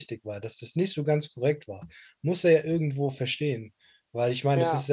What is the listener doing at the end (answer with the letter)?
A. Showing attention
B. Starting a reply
A